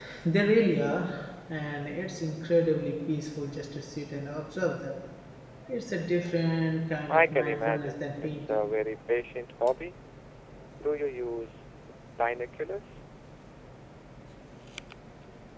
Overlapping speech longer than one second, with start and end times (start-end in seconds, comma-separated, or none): 7.1-8.6